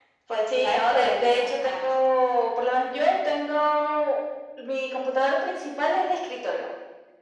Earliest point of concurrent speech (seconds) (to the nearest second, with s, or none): 1 s